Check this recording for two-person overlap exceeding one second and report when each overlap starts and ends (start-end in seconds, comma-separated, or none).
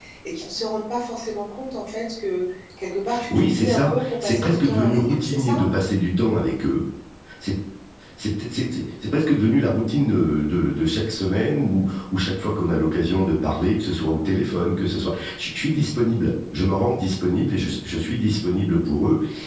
3.3-5.6